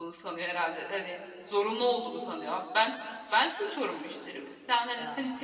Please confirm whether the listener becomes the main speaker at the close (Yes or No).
No